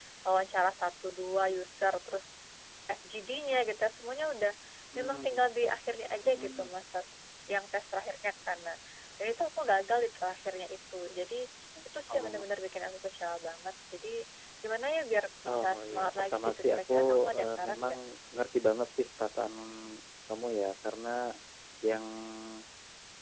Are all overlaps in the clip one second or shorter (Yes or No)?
No